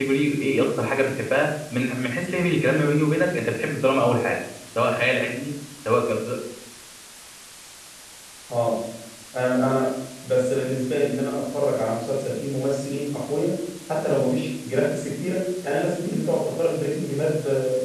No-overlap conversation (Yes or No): Yes